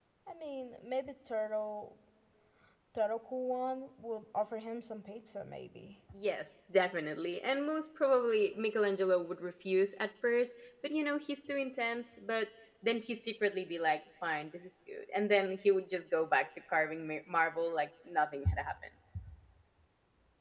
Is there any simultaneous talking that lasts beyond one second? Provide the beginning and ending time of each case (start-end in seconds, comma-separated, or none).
none